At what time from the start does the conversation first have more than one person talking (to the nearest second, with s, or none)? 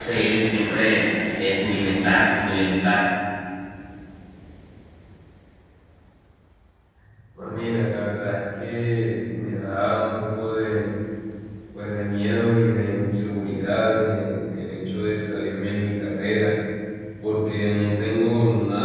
none